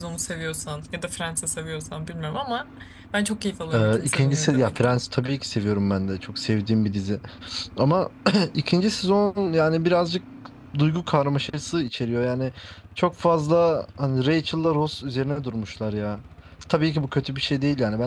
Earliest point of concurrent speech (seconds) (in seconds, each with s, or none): 3.7 s